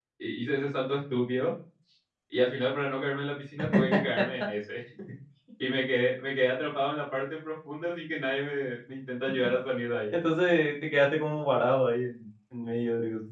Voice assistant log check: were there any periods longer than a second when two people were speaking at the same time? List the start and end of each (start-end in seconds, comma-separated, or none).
none